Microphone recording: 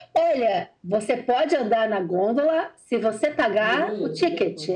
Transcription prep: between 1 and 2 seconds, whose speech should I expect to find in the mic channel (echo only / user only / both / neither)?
echo only